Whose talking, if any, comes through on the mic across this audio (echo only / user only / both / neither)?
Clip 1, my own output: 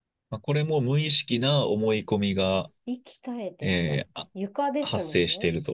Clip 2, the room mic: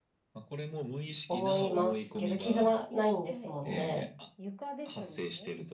both